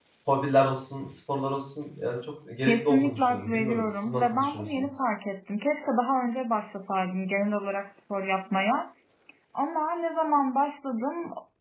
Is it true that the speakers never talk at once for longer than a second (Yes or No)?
No